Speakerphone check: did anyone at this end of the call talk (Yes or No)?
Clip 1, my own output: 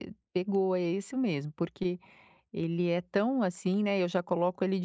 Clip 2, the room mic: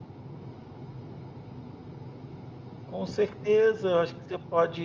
Yes